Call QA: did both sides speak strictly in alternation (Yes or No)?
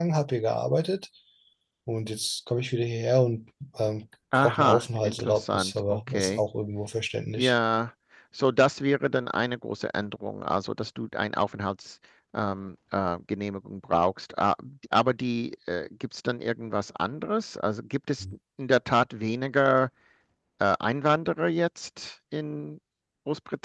No